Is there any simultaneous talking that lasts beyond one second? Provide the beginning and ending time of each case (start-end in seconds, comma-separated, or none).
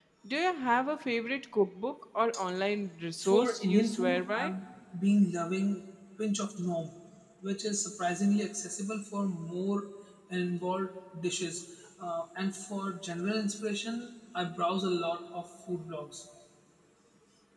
3.2-4.5